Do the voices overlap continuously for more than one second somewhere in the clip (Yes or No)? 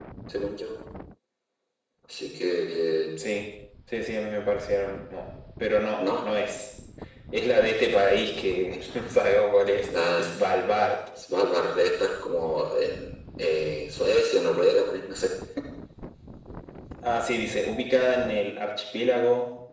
No